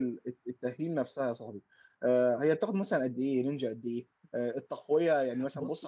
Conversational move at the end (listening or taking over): listening